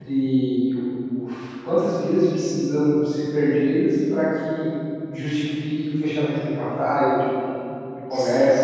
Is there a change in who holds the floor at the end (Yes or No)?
Yes